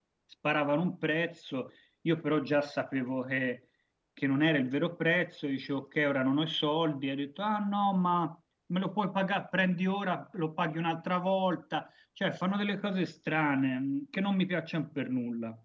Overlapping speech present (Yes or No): No